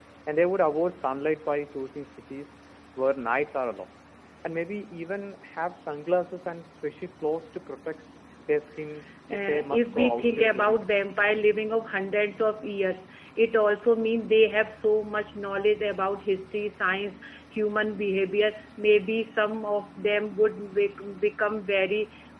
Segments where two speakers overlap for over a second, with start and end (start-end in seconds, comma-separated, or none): 9.4-11.1